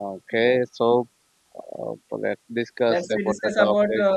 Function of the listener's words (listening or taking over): taking over